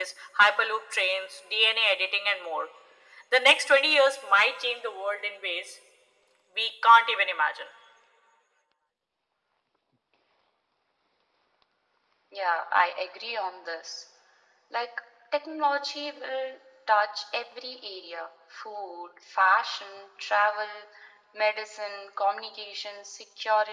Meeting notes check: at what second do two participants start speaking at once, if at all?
none

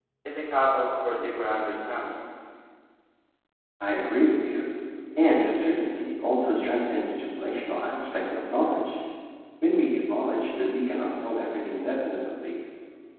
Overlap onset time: none

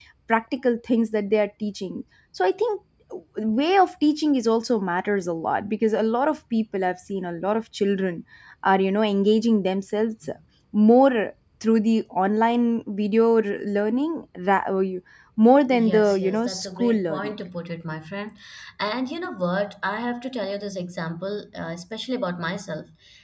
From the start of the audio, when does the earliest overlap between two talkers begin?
15.7 s

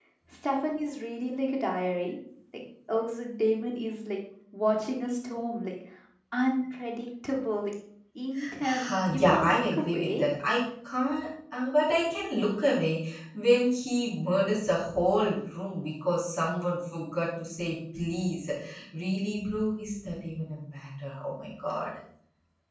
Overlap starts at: 8.6 s

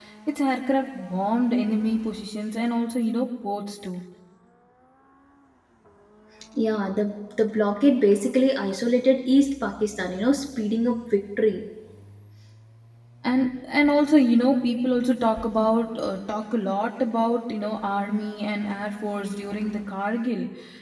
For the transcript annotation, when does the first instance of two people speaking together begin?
none

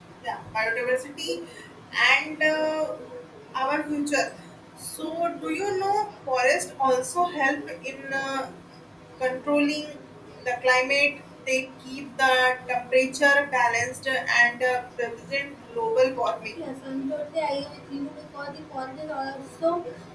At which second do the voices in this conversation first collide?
none

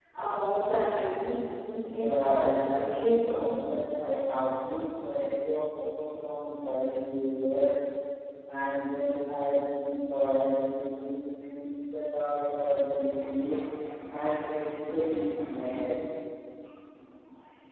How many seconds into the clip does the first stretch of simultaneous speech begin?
2.0 s

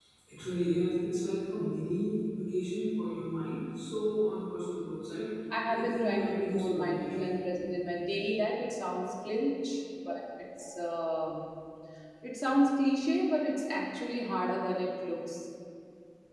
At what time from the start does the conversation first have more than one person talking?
5.7 s

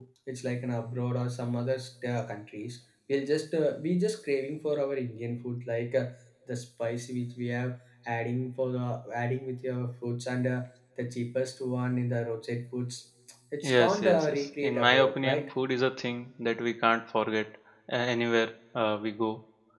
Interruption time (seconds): 13.6 s

